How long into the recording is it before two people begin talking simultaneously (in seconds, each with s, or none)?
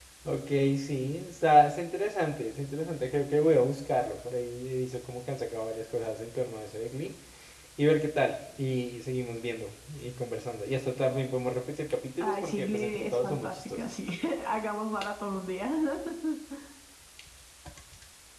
12.2 s